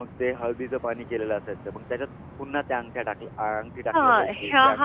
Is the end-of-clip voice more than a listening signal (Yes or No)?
Yes